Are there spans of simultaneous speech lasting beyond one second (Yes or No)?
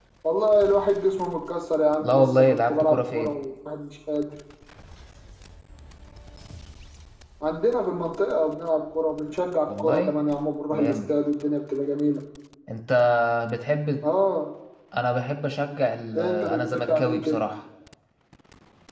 Yes